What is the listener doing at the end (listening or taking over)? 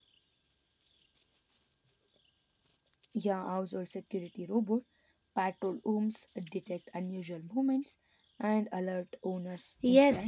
taking over